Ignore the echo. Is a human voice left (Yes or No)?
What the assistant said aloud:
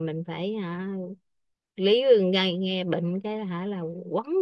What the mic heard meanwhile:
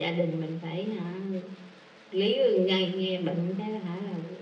No